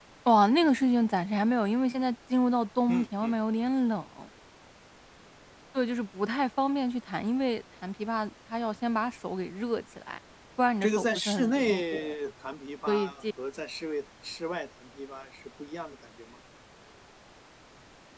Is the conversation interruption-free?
No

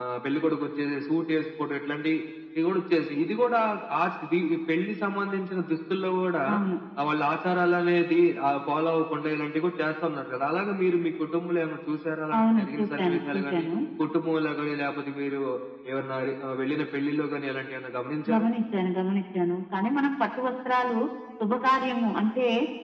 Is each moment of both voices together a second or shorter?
No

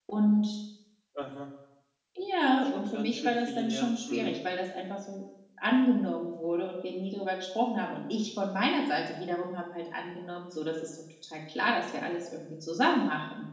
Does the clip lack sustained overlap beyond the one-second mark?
No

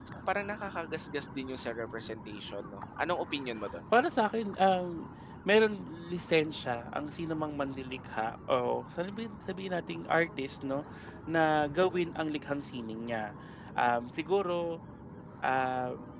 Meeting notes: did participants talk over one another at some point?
No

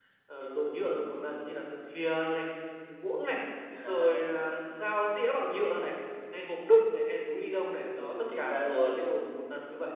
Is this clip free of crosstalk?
No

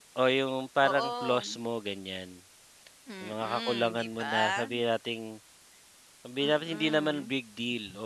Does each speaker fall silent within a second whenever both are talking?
No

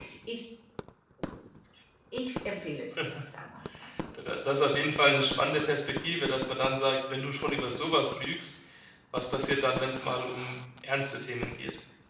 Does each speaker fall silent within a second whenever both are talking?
Yes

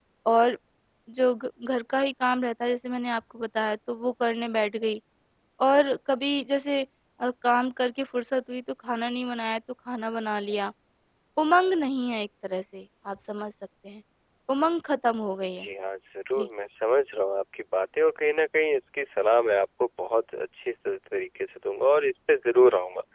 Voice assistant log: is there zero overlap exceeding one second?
Yes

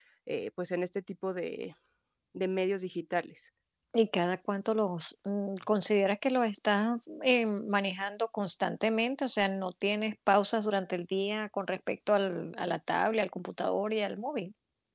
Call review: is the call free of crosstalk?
Yes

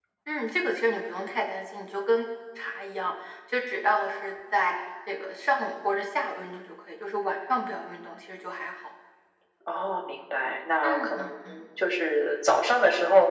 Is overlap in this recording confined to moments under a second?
Yes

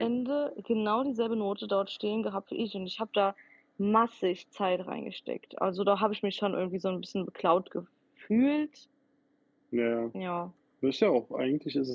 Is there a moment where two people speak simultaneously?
No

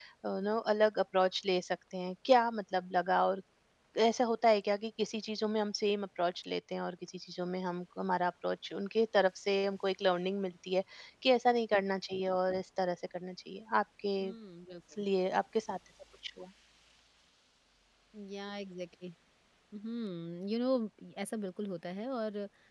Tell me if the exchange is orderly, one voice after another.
Yes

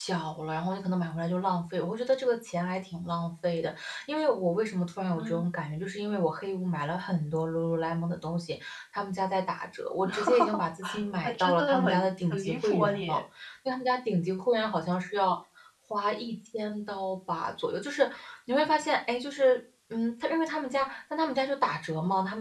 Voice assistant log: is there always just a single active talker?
No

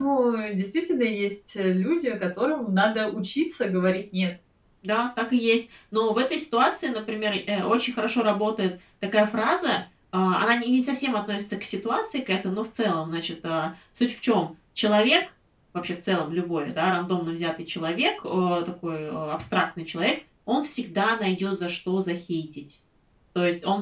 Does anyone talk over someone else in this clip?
No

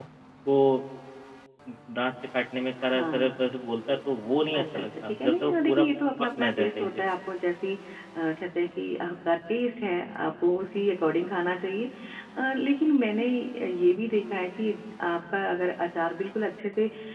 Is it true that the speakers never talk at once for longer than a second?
No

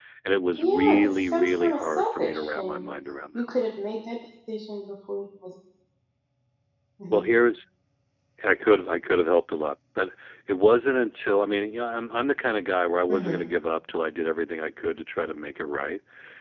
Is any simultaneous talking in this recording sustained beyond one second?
Yes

